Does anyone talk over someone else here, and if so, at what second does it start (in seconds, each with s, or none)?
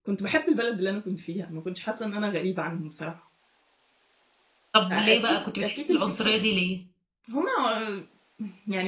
4.9 s